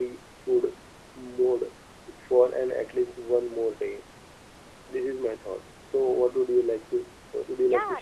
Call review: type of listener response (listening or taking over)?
taking over